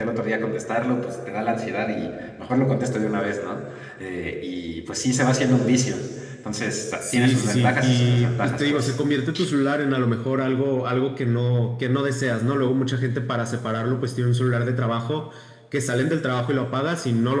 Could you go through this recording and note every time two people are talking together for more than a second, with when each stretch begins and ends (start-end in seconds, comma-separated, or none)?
7.0-8.9